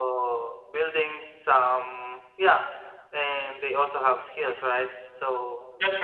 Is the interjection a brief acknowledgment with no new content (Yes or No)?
Yes